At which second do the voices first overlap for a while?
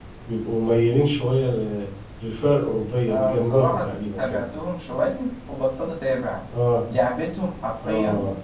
3.1 s

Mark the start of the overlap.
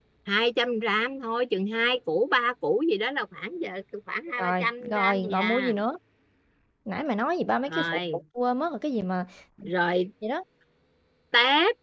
4.4 s

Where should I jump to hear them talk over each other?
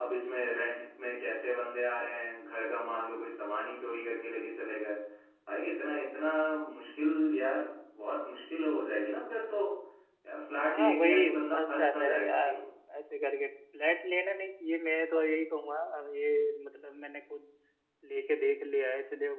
10.7 s

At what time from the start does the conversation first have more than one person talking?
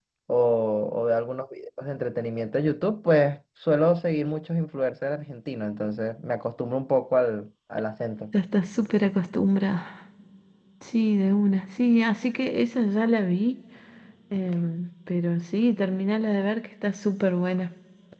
none

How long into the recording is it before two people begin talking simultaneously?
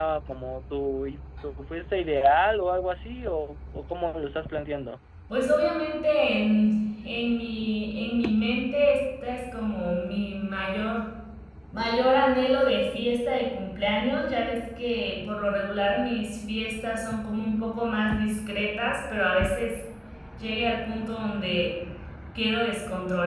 none

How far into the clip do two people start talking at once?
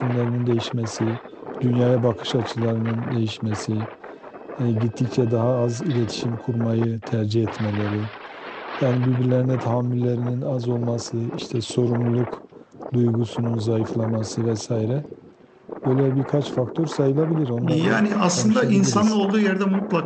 17.6 s

